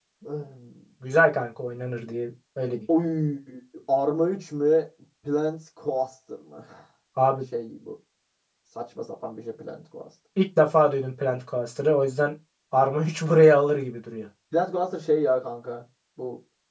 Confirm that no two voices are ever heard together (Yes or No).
Yes